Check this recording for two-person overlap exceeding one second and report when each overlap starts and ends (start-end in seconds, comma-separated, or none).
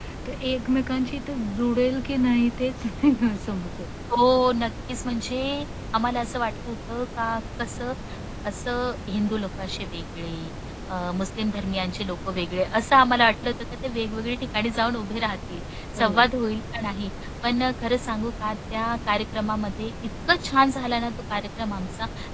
none